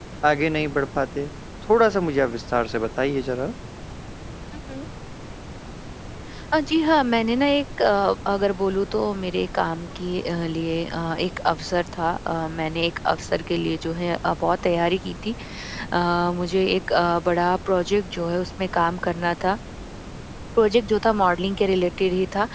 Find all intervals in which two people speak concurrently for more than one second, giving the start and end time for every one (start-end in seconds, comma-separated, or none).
none